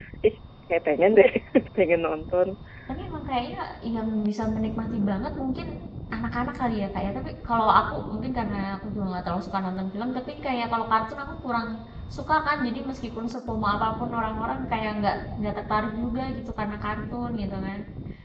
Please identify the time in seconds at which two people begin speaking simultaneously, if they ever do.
none

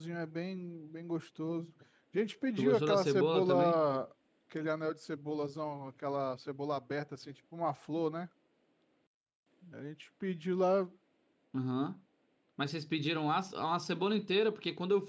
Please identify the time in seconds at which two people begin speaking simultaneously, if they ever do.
2.6 s

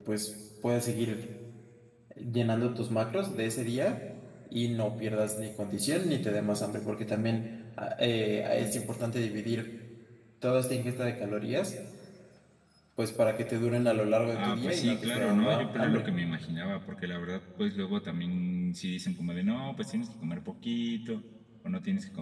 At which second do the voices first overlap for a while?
14.3 s

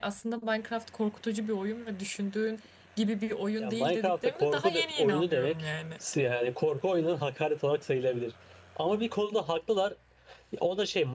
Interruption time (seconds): 3.6 s

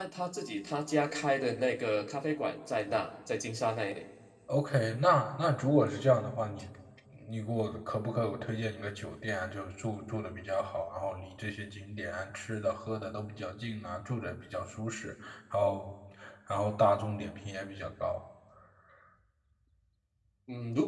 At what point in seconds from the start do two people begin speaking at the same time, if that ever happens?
none

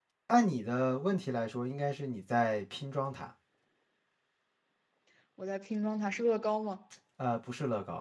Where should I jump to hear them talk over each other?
none

